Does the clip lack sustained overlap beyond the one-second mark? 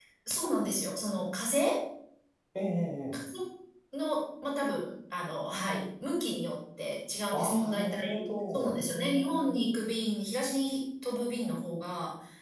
No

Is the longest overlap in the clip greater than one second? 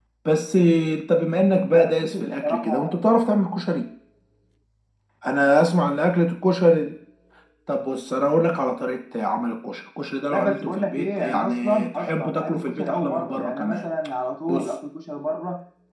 Yes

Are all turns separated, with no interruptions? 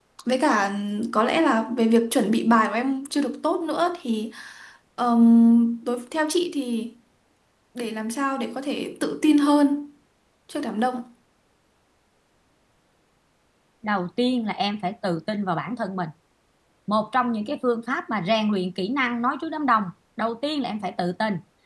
Yes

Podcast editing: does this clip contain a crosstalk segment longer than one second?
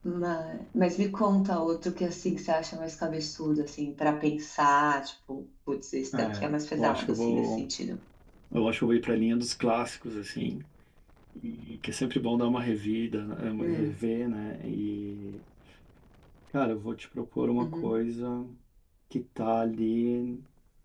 Yes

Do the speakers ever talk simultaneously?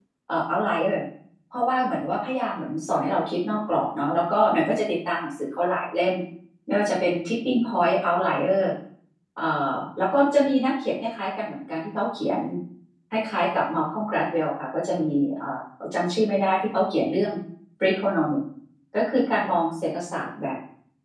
No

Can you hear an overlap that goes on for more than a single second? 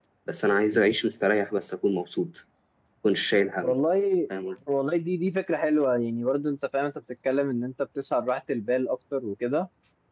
No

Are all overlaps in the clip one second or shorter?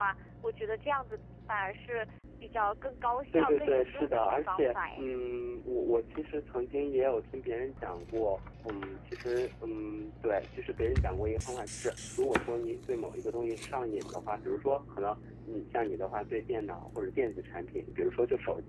No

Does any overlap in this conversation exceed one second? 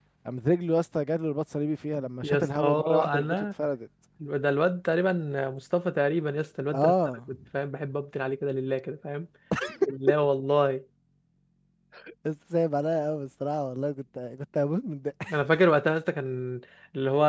Yes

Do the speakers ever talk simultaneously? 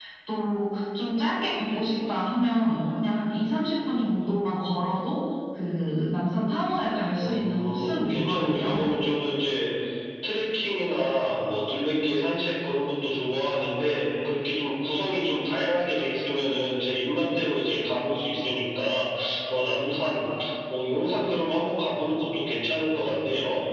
Yes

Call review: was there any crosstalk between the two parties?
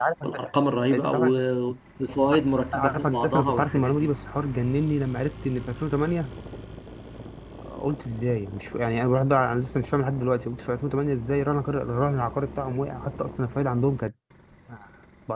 Yes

